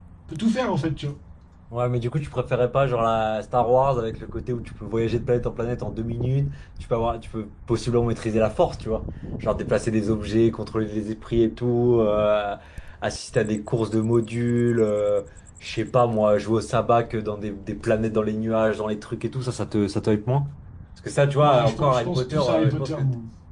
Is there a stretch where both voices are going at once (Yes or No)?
Yes